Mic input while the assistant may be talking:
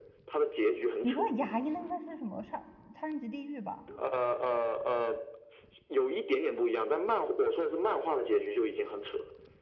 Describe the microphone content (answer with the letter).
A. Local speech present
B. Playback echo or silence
A